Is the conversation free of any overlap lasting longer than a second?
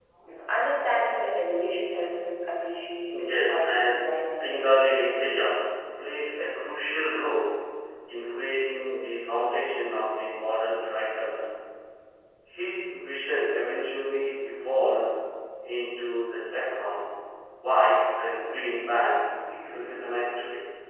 No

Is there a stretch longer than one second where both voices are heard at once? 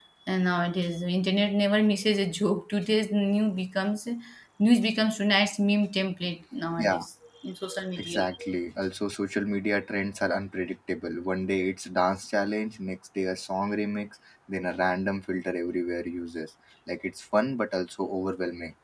No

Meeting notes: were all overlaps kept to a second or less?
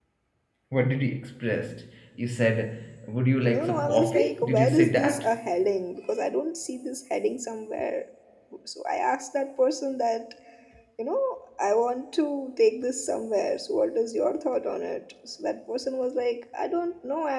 No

